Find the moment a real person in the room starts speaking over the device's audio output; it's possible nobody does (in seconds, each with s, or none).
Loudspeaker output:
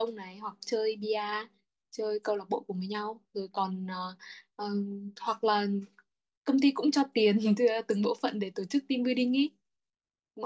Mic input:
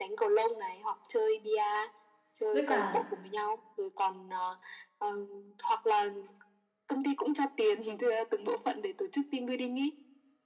2.5 s